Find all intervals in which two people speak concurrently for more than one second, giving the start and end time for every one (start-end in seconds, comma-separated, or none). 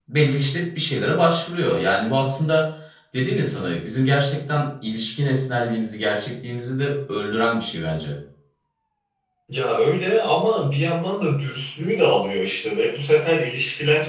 none